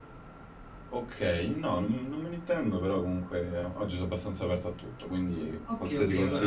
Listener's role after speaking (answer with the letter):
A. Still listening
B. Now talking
B